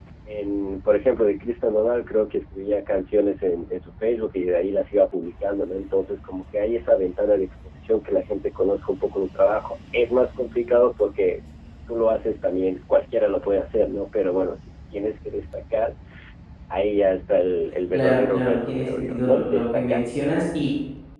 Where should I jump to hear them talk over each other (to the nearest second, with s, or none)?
18 s